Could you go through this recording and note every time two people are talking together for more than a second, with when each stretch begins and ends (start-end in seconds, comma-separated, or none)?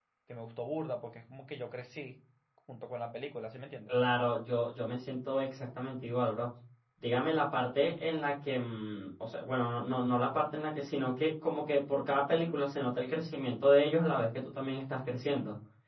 none